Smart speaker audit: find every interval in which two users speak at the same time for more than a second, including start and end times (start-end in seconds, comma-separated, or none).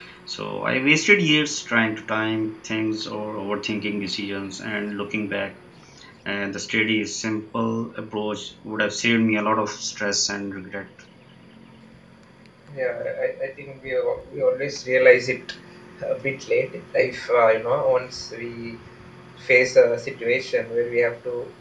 none